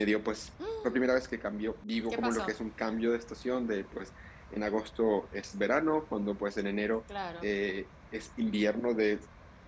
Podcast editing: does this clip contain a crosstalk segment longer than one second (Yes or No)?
No